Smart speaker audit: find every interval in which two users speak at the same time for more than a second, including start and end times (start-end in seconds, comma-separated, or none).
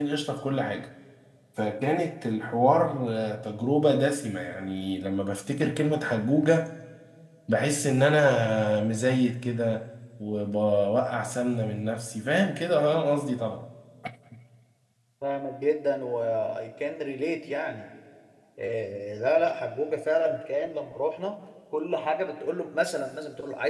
none